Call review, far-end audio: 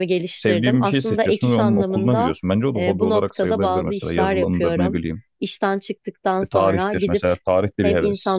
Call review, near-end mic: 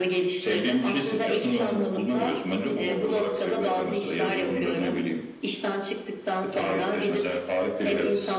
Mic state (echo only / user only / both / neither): echo only